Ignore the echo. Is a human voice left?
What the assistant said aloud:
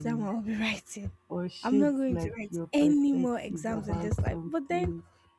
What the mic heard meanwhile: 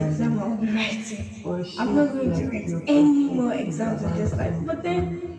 No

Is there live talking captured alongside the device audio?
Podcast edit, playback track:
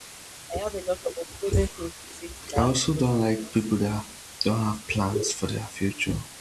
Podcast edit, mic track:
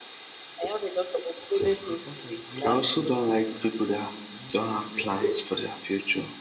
Yes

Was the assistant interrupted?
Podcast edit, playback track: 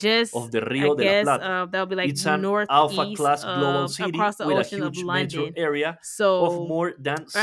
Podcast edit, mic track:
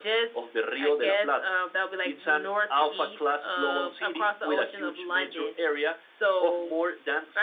No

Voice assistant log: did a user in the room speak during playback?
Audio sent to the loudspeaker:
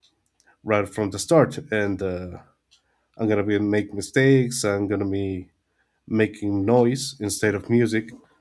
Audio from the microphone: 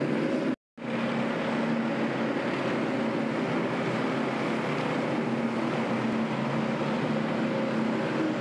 No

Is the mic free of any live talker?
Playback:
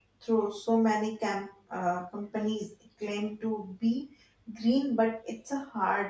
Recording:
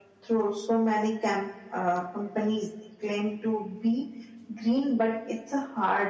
Yes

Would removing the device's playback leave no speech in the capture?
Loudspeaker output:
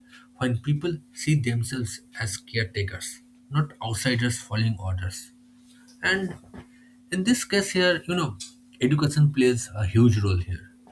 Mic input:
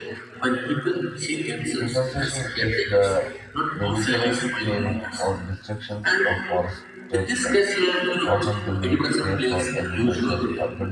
No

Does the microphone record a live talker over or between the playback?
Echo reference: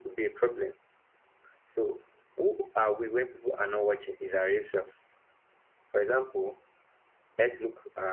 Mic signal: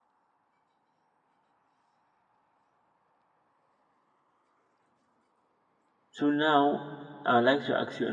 Yes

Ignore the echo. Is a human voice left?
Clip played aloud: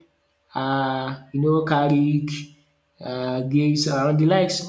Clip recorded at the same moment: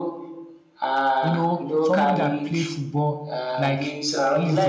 Yes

